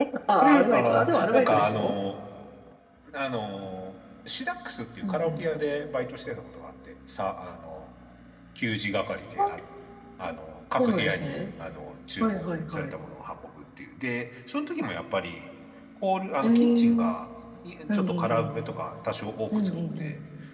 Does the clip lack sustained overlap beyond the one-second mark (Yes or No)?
No